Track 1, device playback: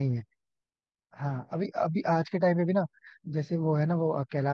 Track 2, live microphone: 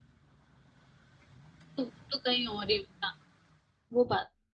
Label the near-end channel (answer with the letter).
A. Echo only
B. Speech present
B